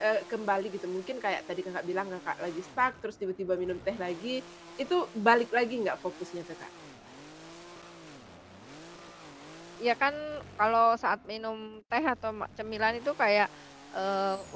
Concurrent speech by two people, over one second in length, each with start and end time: none

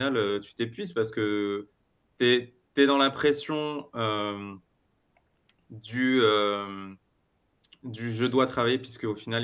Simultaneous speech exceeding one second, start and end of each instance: none

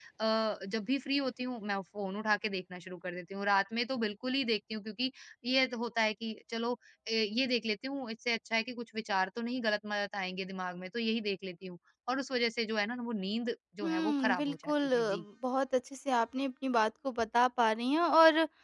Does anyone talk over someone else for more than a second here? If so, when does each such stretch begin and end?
13.8-15.2

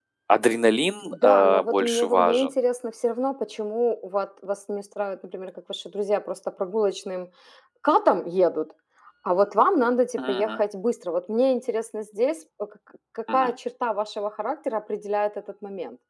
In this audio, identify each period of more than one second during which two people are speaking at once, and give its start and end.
1.1-2.5

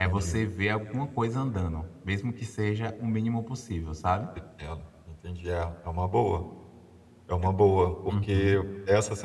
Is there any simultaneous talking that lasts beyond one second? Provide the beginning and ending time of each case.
none

